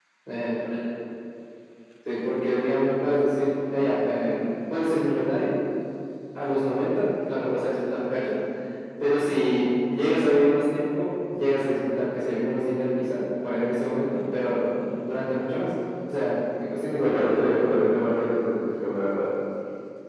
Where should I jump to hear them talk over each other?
17.0 s

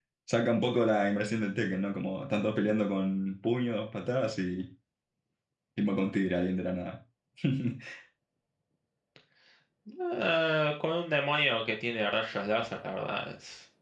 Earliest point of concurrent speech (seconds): none

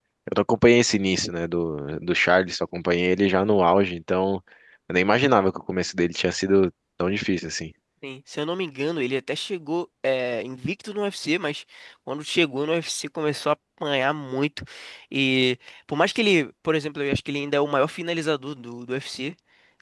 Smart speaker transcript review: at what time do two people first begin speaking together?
none

